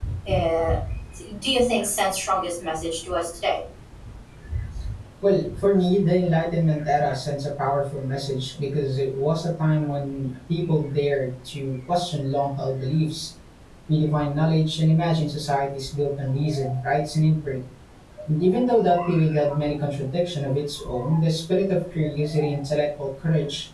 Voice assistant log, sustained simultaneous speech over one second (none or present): none